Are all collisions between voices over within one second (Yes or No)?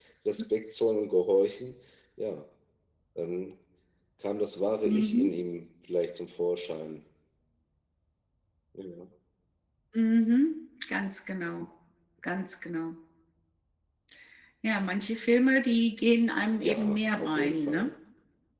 No